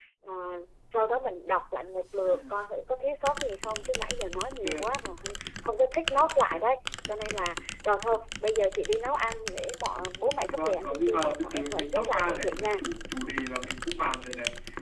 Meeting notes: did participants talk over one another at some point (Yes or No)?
Yes